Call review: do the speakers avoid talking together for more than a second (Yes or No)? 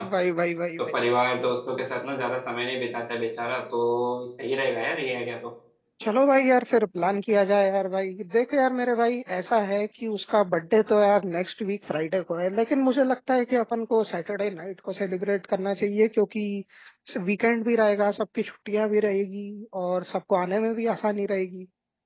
Yes